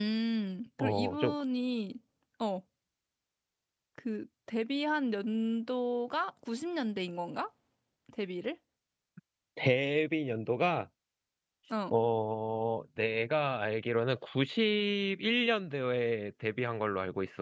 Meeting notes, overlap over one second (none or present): none